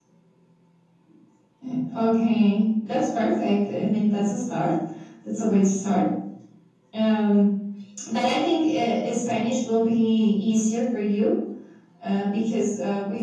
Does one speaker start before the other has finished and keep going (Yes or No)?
No